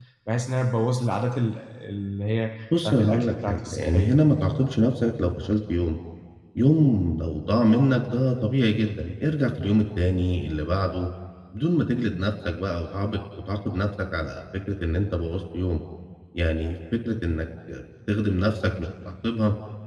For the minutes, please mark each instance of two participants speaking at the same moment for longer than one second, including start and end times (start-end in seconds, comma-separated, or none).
2.8-4.1